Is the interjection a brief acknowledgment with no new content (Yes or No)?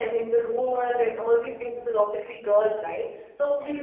Yes